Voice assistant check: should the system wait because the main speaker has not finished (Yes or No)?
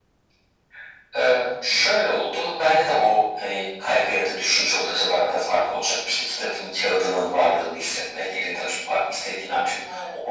Yes